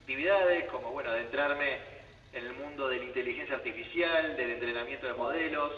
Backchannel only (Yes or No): Yes